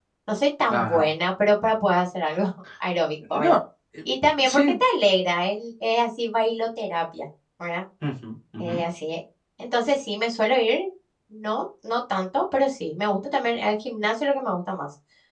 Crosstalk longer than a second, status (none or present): none